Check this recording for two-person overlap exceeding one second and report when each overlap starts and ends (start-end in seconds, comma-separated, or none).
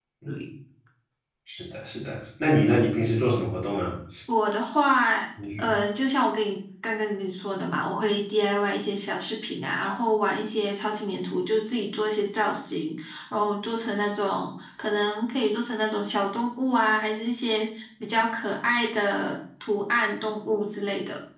none